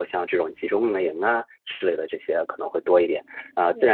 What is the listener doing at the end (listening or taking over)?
listening